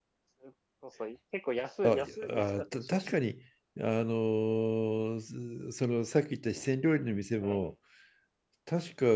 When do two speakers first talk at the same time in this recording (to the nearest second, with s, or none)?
2 s